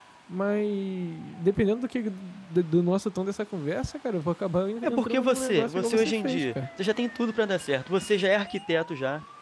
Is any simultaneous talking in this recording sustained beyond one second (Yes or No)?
Yes